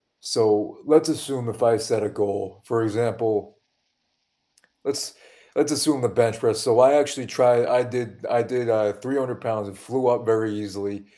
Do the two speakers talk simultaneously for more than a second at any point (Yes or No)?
No